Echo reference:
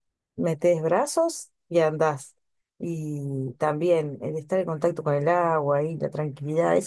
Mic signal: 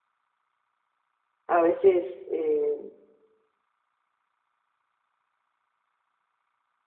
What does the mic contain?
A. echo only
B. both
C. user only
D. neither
C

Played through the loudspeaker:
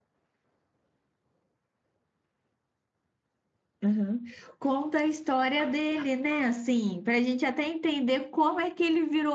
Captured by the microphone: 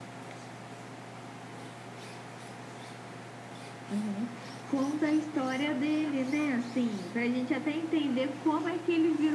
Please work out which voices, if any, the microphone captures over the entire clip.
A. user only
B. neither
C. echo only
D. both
C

